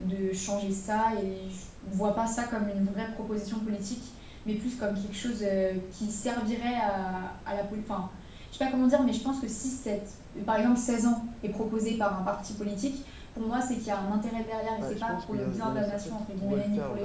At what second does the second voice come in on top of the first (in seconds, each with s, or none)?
14.8 s